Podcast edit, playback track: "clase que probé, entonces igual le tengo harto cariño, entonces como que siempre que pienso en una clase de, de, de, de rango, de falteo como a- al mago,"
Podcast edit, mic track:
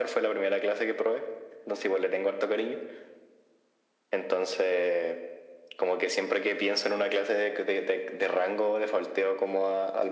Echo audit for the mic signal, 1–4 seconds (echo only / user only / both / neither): echo only